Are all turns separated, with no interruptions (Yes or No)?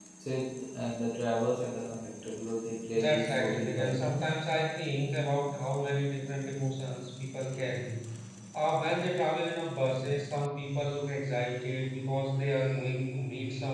No